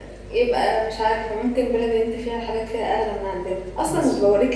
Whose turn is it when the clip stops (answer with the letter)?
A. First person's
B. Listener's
A